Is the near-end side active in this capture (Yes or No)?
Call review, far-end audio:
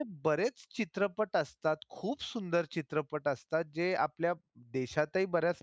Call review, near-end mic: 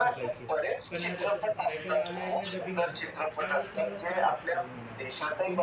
Yes